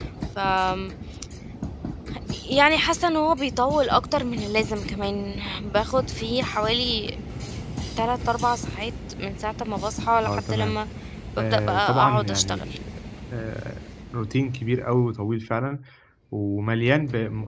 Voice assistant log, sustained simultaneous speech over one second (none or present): present